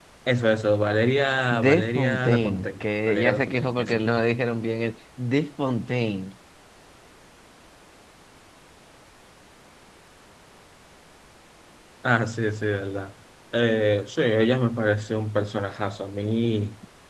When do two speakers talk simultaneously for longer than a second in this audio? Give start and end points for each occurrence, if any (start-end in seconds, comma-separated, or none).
1.5-4.0